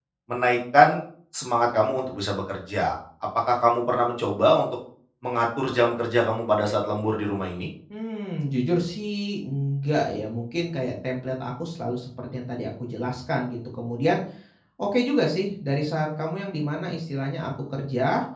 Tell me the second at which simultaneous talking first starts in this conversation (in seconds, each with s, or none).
none